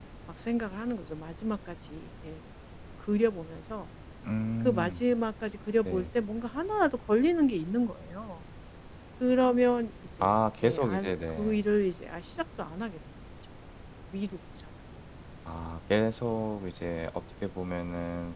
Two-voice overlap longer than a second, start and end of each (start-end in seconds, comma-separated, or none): 10.2-11.6